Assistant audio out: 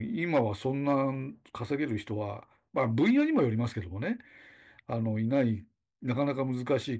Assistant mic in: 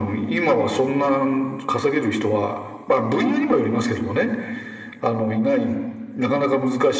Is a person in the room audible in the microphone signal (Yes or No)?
No